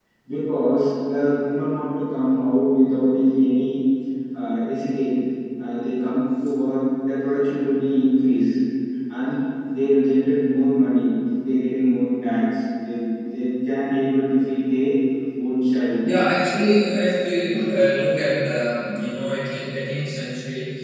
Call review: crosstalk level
none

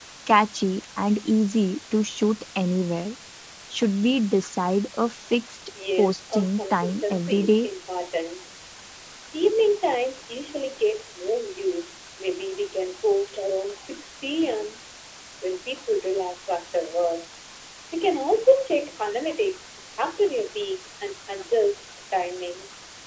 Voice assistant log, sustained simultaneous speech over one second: present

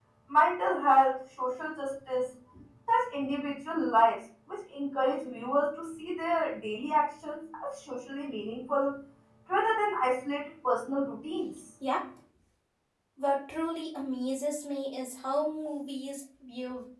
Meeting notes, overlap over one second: none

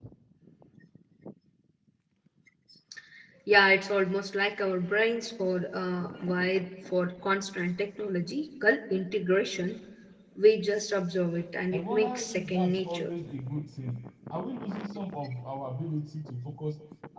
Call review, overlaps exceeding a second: present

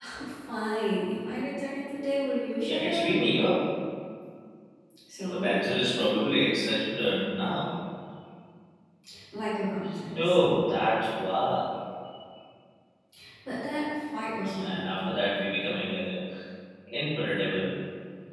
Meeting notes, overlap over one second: none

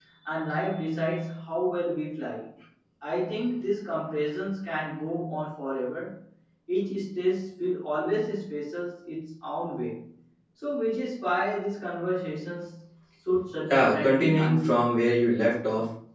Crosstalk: present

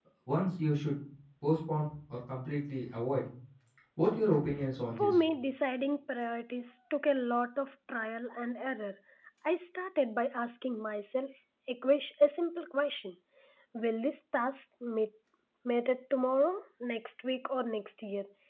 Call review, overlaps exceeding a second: none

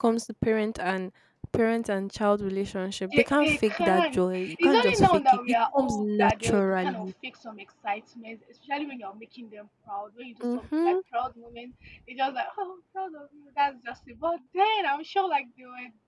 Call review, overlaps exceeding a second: present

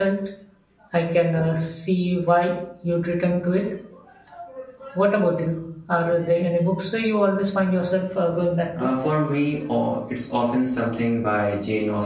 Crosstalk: none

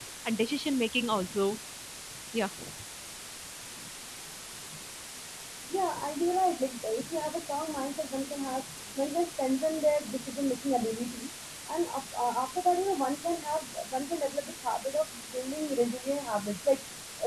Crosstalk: none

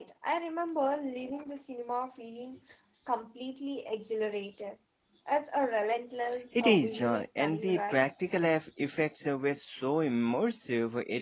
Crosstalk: present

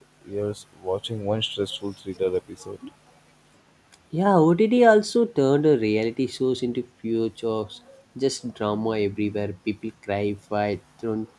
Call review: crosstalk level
none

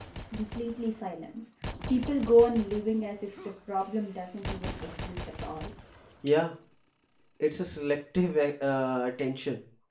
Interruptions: none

